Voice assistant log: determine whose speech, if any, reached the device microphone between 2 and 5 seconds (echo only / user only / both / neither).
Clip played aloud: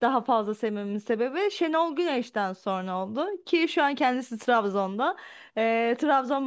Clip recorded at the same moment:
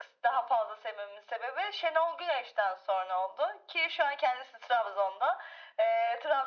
echo only